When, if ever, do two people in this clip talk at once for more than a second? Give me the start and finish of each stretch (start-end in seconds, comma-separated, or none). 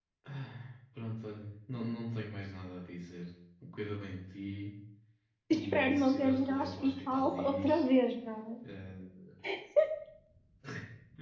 5.5-7.8